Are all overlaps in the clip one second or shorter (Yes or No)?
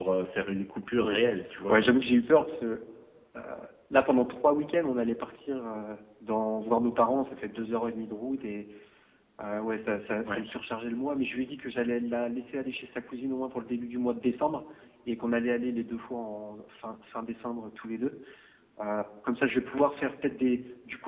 Yes